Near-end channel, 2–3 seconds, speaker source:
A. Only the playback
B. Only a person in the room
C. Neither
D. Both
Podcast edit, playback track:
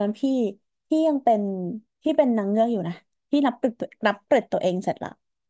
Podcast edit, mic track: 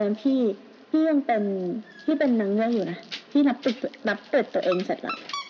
A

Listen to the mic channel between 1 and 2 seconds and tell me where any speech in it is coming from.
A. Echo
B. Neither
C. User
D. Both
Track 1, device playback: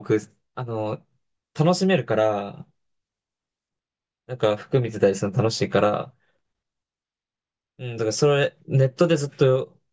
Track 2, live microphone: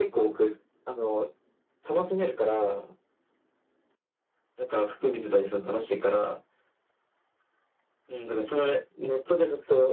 A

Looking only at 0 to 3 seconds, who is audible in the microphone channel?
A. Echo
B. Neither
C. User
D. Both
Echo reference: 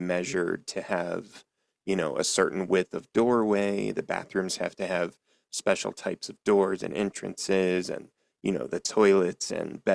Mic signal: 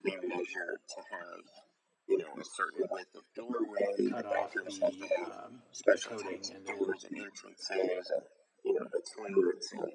A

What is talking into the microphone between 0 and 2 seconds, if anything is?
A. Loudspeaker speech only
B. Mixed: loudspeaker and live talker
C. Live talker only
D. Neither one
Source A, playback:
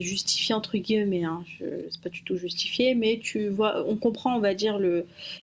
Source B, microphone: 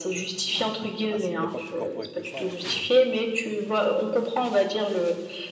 B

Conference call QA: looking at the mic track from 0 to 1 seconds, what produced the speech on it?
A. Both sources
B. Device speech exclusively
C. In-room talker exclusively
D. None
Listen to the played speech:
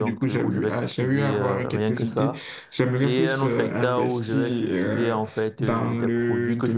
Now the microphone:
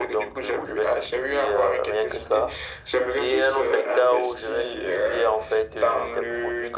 B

